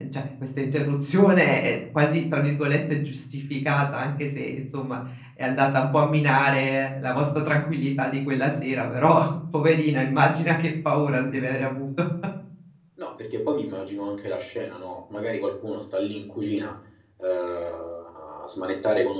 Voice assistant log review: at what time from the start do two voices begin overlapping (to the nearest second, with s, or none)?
none